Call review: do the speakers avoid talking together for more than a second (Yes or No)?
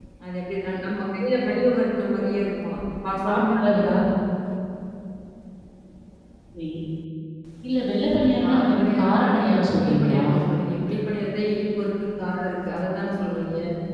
No